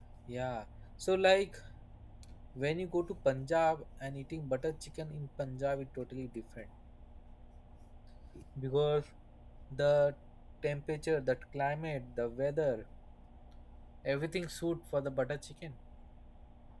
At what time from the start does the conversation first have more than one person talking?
none

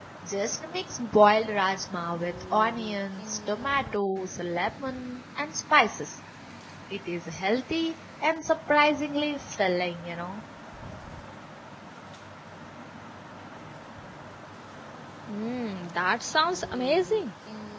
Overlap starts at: none

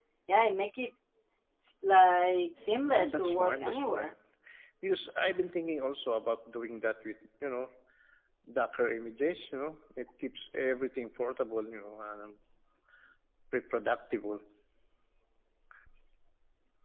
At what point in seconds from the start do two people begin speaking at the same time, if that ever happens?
2.8 s

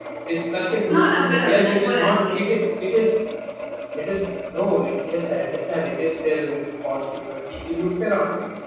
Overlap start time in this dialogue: 0.7 s

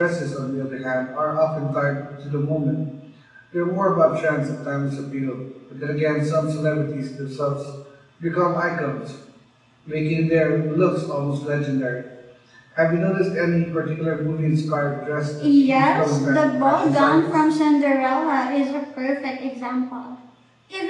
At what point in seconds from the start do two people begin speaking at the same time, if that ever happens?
15.4 s

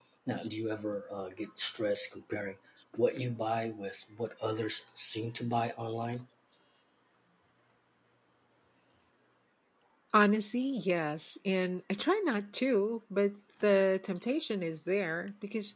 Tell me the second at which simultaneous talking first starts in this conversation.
none

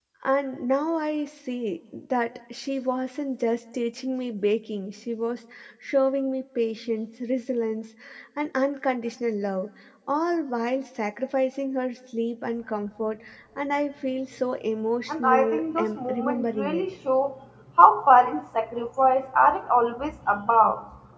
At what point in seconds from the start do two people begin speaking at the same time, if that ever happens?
15.1 s

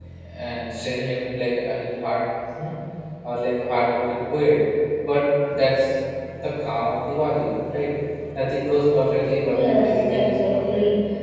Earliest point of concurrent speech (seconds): 9.5 s

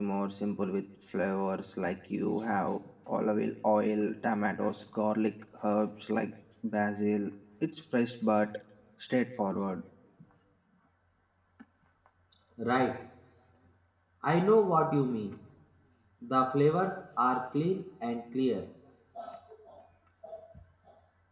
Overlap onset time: none

